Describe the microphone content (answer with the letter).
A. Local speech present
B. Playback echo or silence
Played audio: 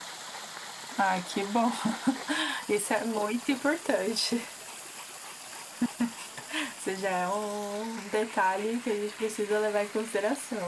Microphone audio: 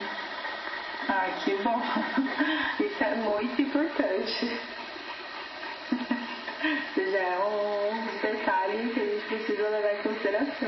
B